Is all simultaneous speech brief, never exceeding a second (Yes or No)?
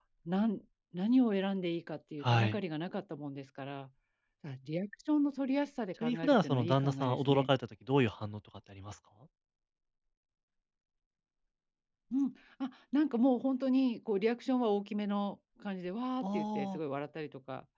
No